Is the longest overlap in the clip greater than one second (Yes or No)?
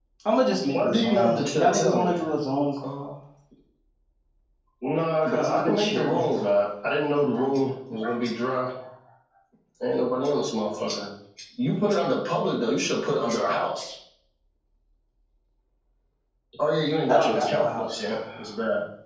Yes